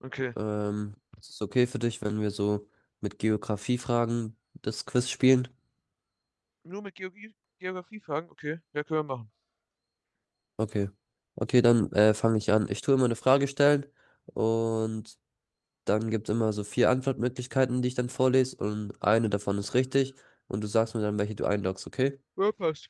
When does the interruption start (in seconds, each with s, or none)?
none